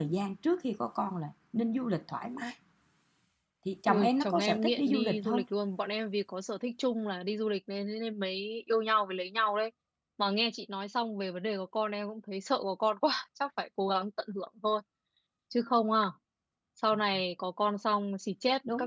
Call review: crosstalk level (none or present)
present